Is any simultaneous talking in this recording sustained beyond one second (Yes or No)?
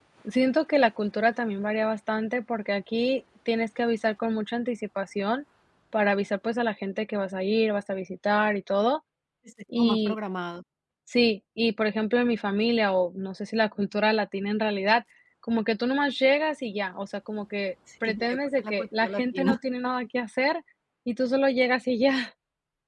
Yes